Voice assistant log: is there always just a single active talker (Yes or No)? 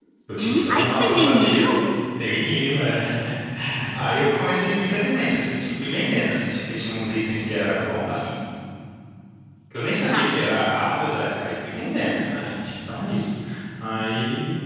No